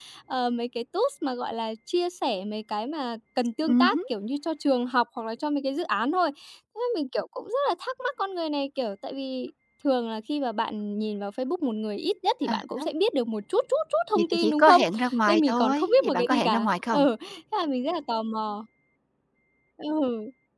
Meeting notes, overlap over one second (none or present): present